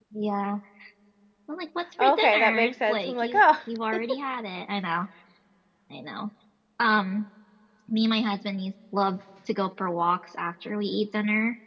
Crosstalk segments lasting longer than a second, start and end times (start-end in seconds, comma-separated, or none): 2.0-3.4